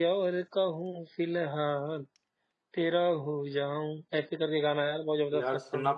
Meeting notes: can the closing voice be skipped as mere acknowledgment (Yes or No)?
No